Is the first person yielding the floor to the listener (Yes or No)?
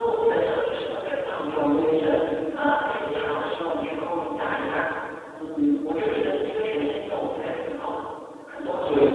Yes